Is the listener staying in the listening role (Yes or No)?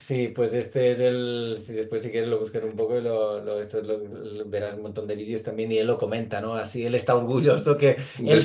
Yes